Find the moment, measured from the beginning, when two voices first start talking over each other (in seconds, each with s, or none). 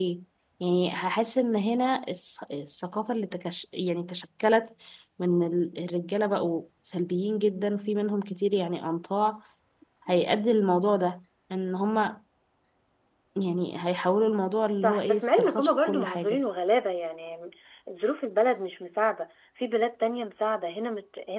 14.8 s